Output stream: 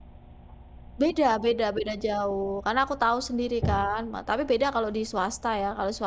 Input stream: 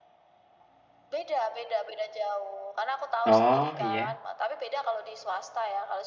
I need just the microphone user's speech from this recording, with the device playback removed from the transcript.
Oh, iya.

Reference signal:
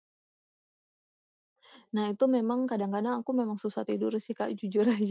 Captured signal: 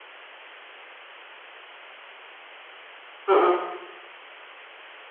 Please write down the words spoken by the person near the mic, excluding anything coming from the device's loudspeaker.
Mhm.

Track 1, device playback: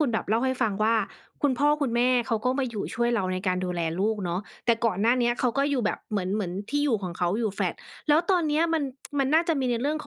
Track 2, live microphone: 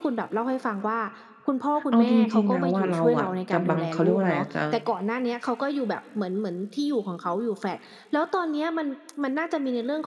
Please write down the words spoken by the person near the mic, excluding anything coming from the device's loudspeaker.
เอาจริง ๆ แล้วอะ เราอะจะบัง เขาเรียกว่าอะไรอะจะ

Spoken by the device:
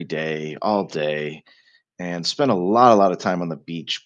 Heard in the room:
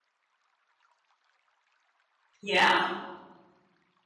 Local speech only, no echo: Yeah.

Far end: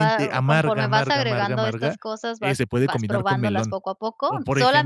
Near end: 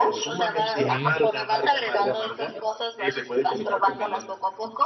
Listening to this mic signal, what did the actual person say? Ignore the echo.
Sí.

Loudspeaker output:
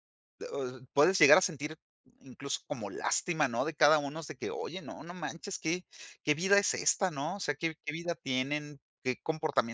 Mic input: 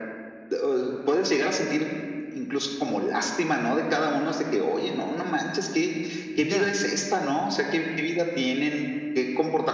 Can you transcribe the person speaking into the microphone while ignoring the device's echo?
Mira.

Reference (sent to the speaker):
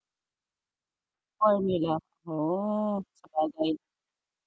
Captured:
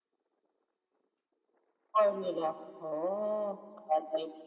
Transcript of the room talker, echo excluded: none

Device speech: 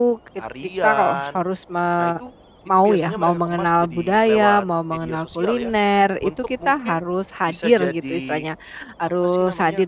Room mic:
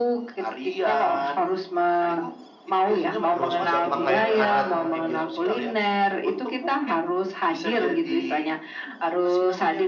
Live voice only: terus juga pakaian adat

